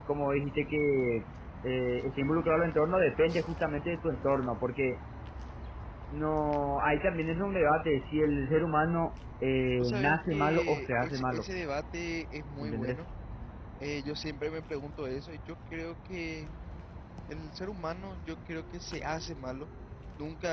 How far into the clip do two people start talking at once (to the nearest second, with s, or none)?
10 s